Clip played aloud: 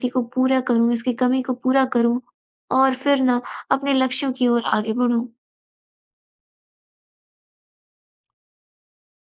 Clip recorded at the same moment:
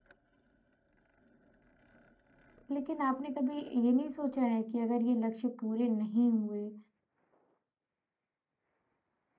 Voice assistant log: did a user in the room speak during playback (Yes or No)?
Yes